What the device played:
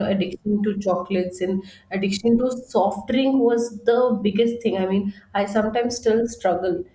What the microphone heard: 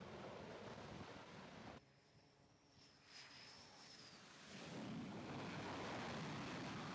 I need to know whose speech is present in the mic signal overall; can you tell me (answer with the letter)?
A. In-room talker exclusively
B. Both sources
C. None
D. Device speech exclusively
C